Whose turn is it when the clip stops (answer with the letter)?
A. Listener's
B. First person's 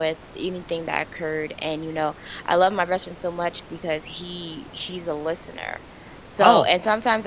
B